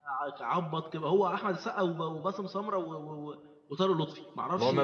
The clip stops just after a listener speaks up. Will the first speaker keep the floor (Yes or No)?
No